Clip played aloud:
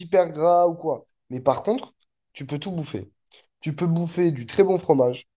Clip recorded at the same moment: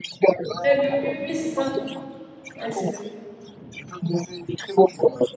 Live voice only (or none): Eh ben oui, oui, oui, c'est ça. Ouais, c'est exact.